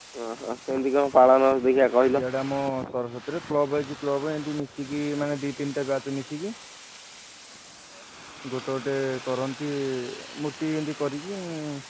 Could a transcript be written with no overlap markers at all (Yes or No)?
Yes